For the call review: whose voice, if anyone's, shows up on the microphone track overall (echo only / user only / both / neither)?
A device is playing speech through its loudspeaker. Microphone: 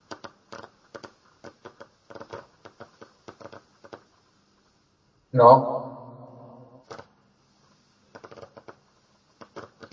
user only